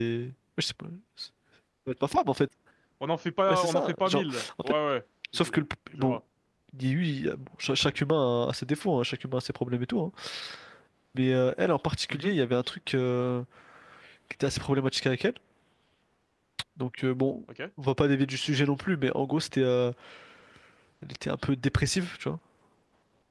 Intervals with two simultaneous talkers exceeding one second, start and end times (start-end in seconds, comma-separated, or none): 3.5-4.7